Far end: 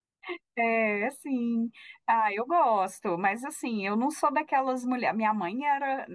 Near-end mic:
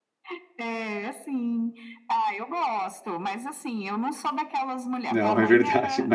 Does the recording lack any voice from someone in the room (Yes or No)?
No